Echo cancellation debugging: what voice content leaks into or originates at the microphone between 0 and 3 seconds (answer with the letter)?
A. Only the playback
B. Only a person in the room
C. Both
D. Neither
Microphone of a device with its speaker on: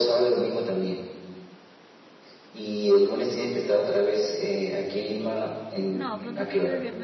A